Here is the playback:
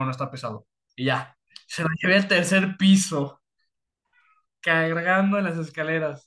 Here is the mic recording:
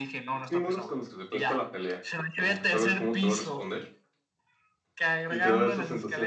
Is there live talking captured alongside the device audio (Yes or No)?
Yes